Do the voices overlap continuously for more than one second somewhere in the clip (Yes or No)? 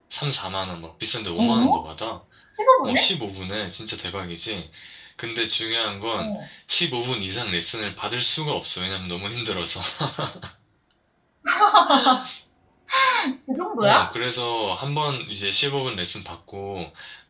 No